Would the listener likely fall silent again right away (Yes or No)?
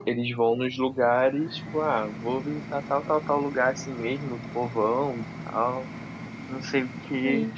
Yes